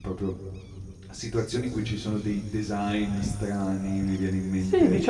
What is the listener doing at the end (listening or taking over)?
taking over